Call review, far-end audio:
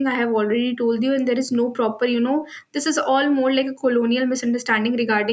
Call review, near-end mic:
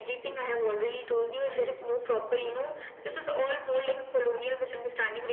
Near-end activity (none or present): present